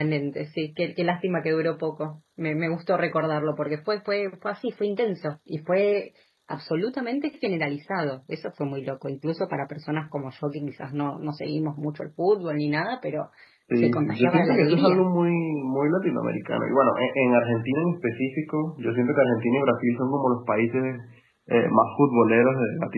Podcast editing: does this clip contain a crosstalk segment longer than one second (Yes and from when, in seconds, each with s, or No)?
Yes, from 13.8 s